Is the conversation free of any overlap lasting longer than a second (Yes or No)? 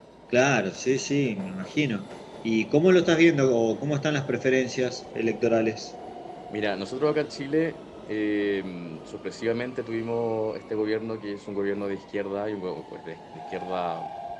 Yes